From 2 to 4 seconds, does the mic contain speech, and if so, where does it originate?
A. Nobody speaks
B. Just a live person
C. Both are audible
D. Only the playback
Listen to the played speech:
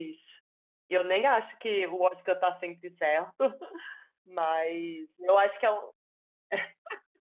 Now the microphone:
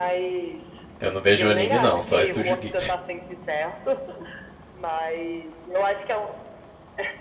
C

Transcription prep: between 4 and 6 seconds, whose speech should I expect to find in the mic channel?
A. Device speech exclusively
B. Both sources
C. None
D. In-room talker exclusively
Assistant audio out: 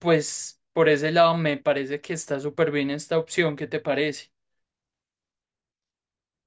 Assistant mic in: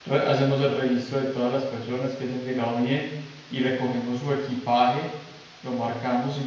D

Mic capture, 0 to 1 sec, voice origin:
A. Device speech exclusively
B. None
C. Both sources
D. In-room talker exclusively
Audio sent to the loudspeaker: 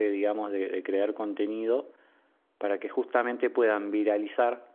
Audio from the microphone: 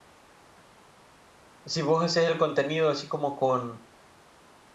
B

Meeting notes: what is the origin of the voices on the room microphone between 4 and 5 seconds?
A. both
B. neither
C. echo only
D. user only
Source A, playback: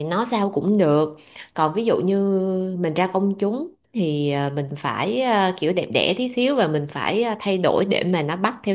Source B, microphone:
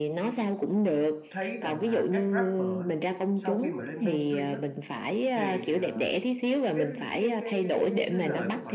A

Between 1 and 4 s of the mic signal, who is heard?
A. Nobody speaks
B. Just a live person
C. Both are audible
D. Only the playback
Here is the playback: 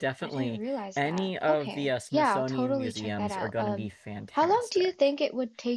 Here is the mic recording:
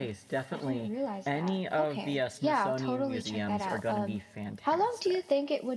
D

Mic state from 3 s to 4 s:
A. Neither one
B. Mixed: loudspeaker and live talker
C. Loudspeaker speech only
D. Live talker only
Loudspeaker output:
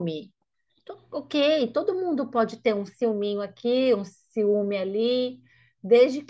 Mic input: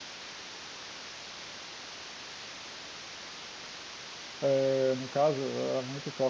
A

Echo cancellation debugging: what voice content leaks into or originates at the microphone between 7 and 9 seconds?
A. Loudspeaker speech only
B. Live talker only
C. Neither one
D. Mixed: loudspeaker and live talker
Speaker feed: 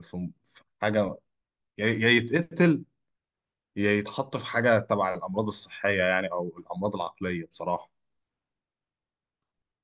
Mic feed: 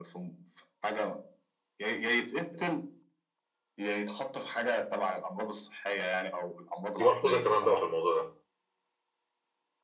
D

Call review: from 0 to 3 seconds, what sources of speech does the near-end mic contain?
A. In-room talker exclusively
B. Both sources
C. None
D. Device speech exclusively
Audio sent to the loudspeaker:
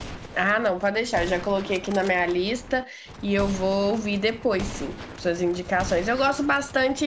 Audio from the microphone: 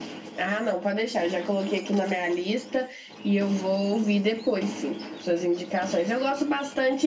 D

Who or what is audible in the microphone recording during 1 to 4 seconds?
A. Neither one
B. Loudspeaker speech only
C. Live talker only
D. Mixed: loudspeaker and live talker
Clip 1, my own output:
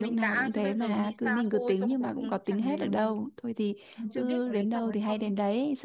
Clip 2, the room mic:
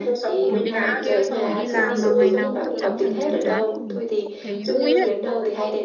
D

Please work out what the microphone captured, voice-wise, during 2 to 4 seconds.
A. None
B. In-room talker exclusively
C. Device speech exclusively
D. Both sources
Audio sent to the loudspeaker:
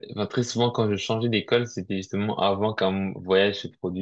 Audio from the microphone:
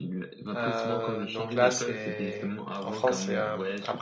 D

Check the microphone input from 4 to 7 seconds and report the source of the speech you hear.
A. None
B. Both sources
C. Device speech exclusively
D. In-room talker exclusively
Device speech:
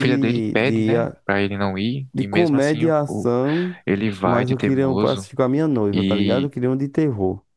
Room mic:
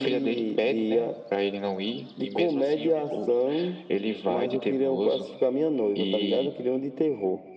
C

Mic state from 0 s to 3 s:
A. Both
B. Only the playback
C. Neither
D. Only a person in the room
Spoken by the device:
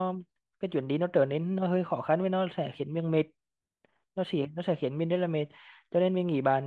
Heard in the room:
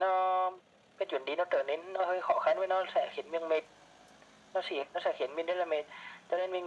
B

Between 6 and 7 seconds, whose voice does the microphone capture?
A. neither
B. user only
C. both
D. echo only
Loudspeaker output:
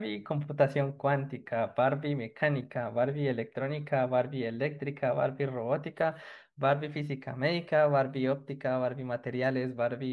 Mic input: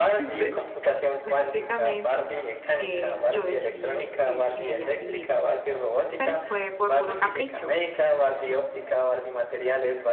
C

